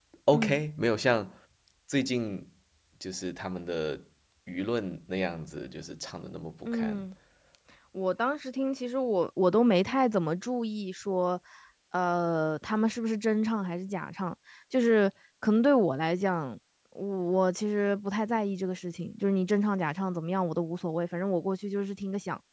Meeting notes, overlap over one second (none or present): none